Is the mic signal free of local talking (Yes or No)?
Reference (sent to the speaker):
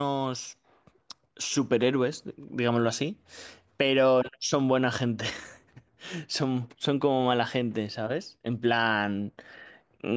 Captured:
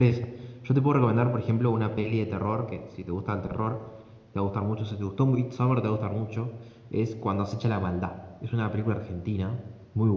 No